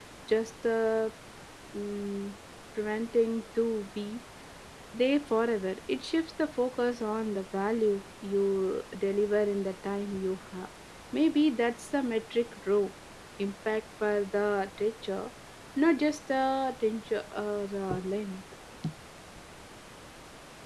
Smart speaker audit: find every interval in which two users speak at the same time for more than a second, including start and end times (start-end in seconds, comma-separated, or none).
none